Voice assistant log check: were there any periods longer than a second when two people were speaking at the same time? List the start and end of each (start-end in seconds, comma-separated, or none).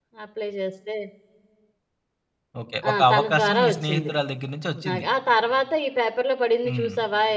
2.9-4.1